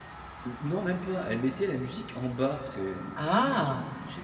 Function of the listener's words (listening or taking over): listening